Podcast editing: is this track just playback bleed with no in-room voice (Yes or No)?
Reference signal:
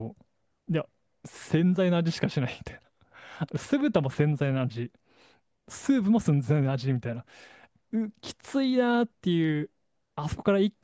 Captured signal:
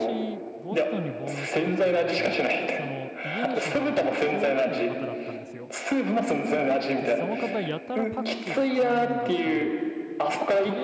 No